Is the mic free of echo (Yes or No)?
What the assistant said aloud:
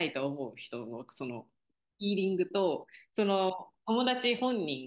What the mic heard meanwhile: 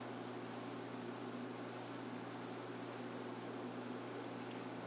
Yes